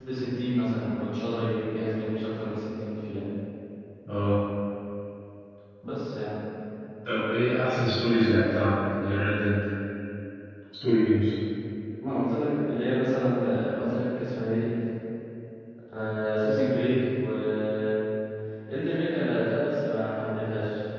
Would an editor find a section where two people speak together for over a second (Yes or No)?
No